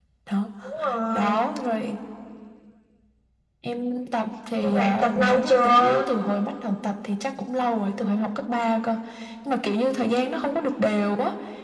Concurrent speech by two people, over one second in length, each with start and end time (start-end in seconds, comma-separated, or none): 4.6-6.0